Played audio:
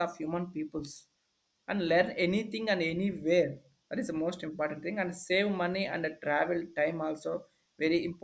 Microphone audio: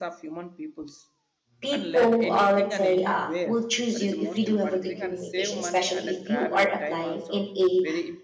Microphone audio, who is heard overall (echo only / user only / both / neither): both